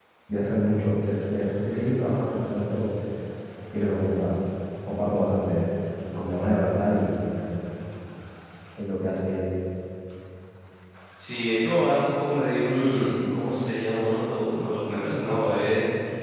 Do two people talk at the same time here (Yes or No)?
No